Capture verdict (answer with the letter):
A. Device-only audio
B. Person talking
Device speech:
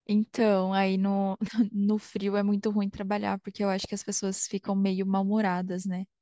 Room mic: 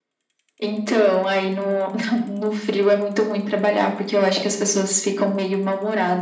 A